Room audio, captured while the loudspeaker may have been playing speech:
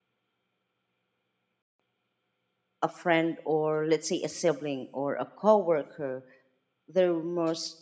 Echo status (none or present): none